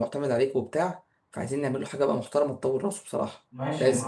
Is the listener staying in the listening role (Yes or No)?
No